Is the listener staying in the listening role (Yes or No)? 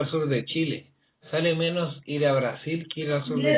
No